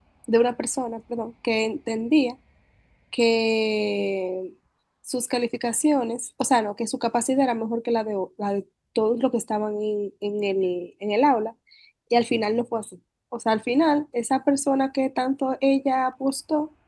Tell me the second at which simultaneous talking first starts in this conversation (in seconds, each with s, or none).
none